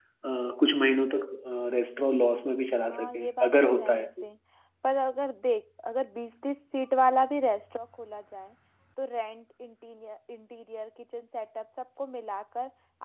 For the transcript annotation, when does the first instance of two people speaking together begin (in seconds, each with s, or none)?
2.9 s